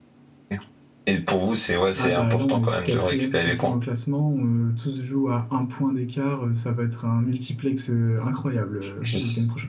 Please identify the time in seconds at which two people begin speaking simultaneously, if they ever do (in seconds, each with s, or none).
2.0 s